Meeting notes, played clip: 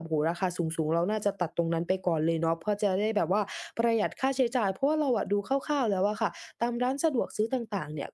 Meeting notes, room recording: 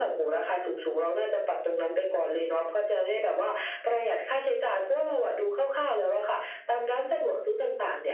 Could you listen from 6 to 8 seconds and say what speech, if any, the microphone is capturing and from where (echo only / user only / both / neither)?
echo only